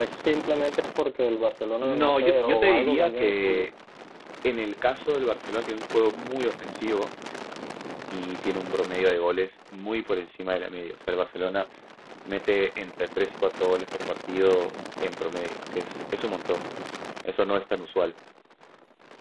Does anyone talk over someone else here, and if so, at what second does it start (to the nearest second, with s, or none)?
2 s